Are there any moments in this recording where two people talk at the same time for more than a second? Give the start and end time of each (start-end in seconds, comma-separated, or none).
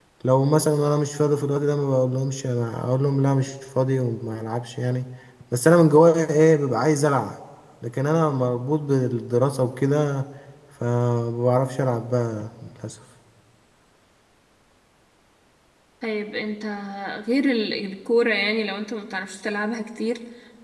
none